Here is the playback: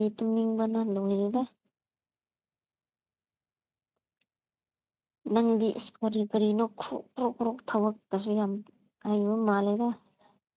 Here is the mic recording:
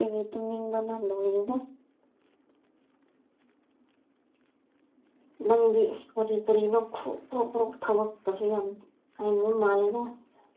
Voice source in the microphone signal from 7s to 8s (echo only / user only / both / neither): echo only